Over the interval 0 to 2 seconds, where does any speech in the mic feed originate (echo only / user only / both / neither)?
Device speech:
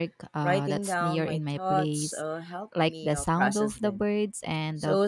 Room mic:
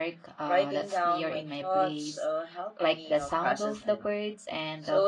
echo only